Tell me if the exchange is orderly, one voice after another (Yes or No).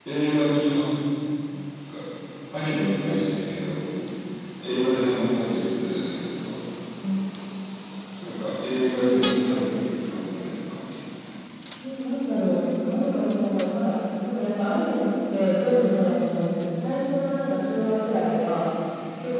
Yes